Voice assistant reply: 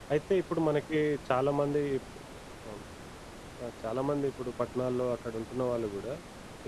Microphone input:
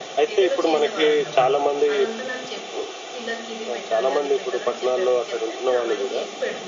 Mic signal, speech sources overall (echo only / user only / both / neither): both